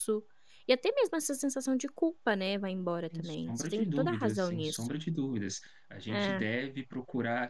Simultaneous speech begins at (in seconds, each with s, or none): 3.1 s